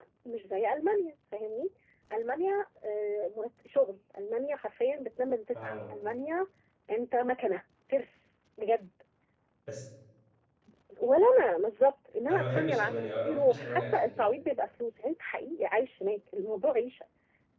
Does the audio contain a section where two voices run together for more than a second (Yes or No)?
Yes